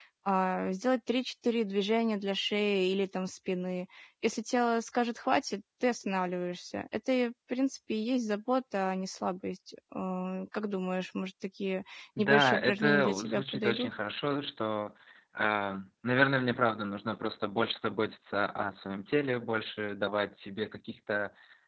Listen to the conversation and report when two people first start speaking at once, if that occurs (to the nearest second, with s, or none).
12 s